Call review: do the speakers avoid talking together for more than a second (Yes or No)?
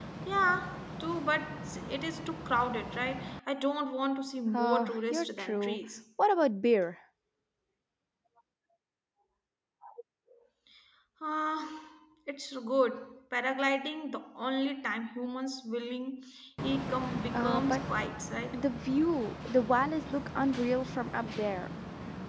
No